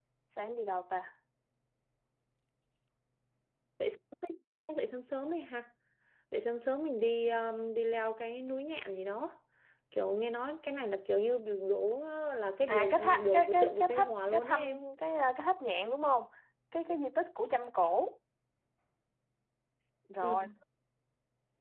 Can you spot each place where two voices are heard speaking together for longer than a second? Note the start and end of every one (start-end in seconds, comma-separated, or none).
12.7-14.6